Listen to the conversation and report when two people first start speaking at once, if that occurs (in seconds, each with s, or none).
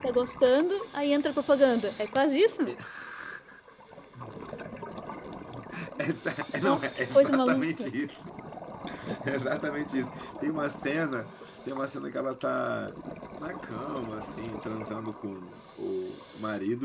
6.5 s